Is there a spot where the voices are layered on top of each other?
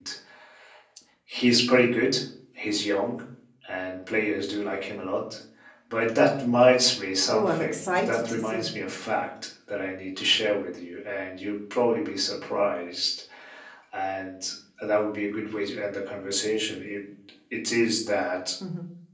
Yes, from 7.3 s

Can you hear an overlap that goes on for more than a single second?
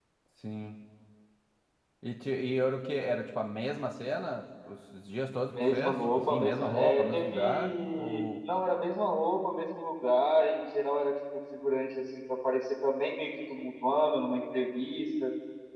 Yes, from 5.5 s

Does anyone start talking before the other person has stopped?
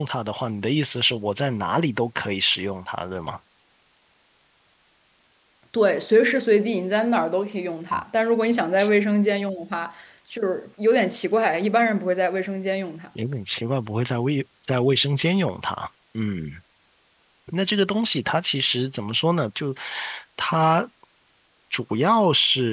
No

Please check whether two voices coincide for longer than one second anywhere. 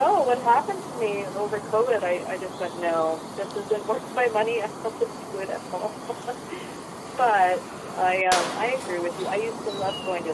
No

